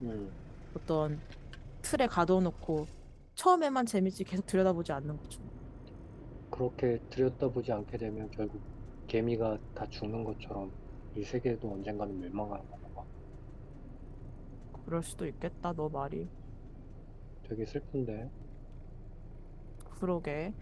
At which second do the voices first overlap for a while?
none

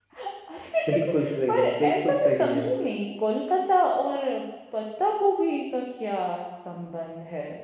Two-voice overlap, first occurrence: 0.9 s

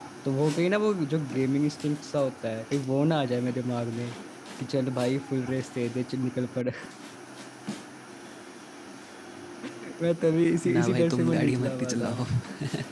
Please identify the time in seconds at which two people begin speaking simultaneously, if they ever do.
10.6 s

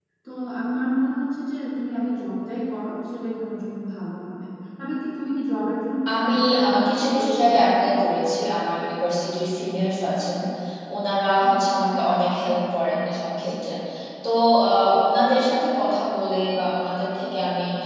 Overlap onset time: 6.1 s

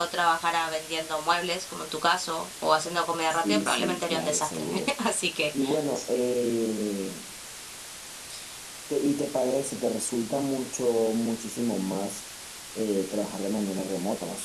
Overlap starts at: 3.3 s

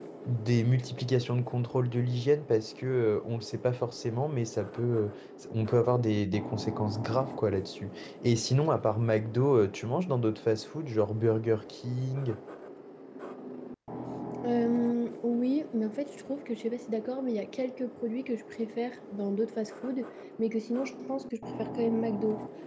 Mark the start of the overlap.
none

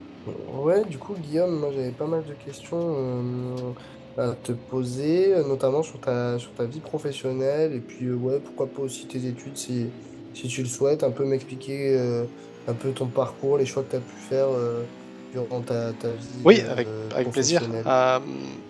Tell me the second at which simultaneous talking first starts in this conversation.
16.4 s

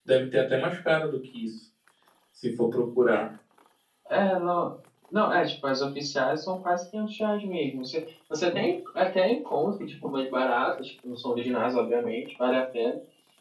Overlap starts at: none

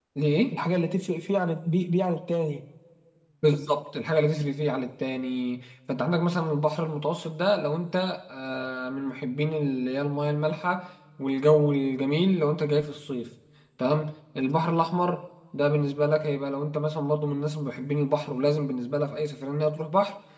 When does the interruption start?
none

